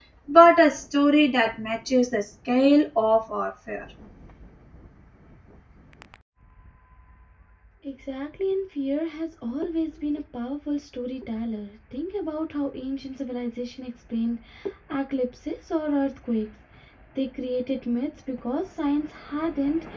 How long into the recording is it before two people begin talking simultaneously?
none

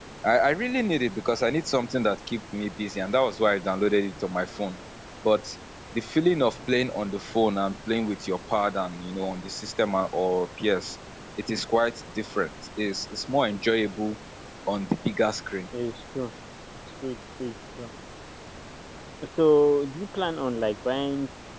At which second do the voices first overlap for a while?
none

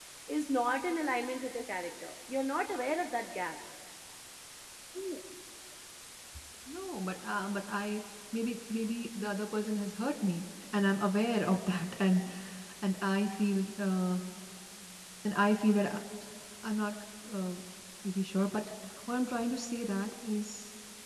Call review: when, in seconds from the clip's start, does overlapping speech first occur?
none

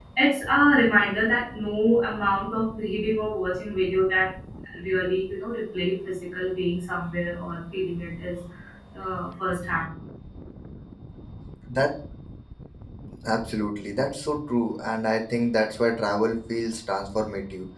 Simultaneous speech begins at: none

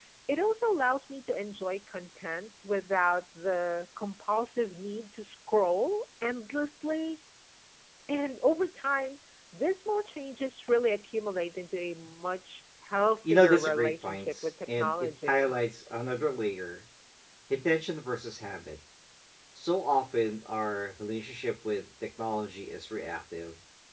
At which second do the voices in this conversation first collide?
13.2 s

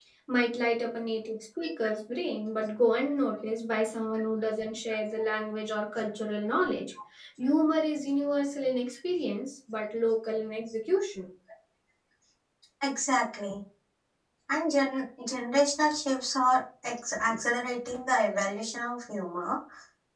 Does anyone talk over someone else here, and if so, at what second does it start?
none

